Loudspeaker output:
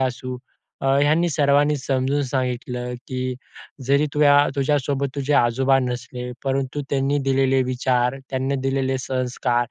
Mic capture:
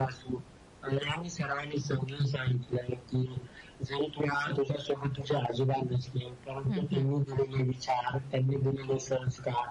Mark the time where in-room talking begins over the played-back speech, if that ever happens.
6.7 s

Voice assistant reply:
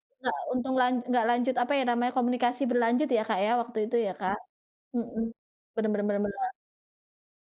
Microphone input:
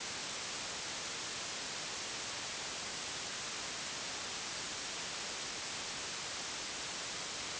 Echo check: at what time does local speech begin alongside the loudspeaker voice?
none

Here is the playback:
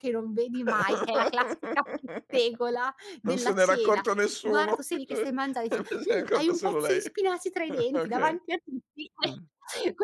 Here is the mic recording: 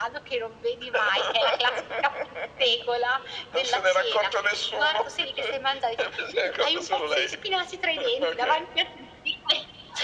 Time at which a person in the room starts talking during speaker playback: none

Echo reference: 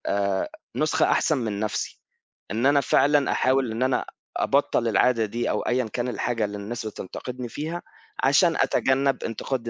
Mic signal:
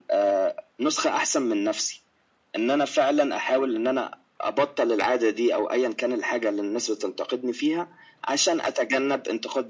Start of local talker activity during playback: none

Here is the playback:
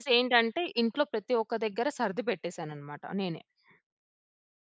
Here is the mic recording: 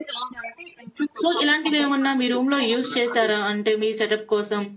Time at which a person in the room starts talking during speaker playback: 1.2 s

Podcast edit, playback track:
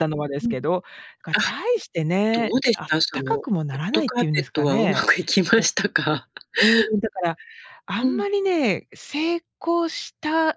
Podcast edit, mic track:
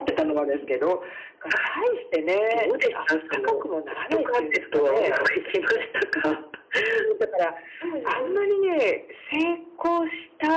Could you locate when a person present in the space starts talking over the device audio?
7.8 s

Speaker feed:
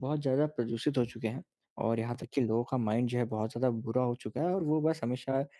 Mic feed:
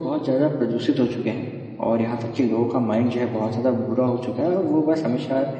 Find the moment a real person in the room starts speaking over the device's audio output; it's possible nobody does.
none

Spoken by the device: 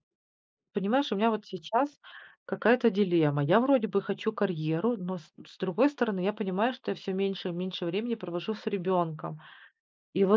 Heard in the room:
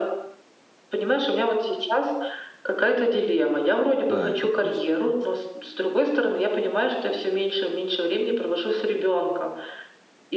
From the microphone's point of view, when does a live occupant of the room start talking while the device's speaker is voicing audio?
4.1 s

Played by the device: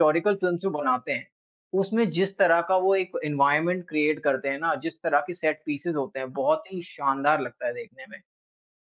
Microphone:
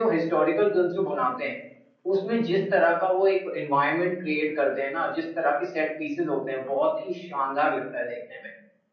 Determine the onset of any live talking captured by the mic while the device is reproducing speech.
none

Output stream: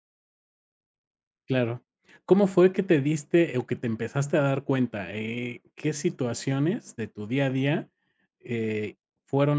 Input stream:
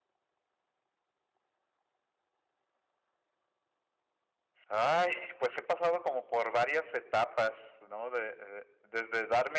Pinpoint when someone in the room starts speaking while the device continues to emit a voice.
4.7 s

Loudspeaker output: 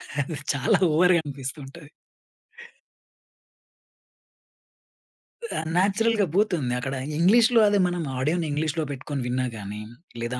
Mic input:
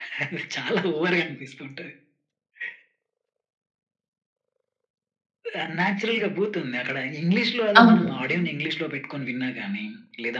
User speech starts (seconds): 7.8 s

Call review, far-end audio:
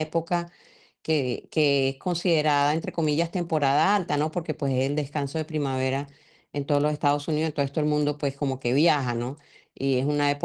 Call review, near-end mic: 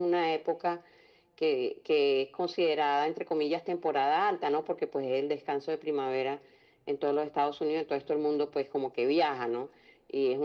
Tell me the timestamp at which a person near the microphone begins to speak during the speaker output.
none

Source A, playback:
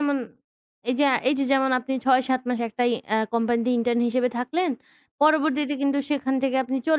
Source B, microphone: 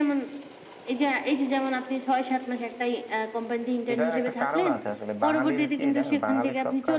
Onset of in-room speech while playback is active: 3.9 s

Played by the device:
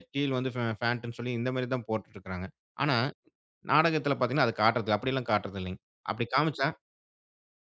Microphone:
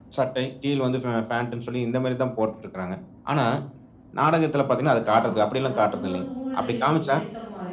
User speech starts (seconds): 5.1 s

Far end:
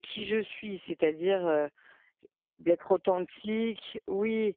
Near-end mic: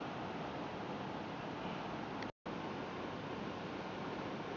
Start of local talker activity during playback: none

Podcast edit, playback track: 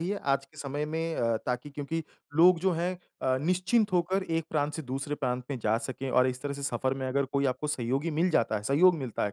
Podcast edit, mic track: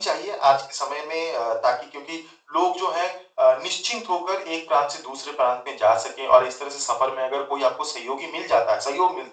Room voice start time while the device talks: none

